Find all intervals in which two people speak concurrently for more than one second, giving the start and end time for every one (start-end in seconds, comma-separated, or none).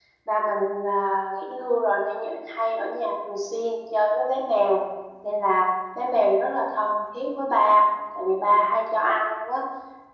none